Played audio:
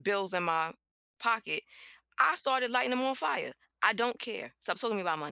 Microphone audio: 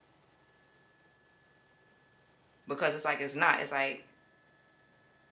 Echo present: No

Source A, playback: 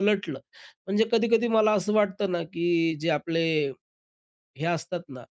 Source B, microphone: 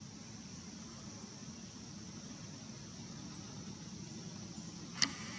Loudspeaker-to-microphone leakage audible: No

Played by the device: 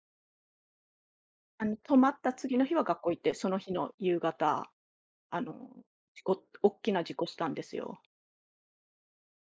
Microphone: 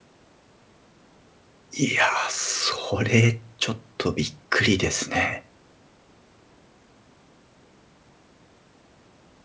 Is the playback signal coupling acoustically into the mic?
No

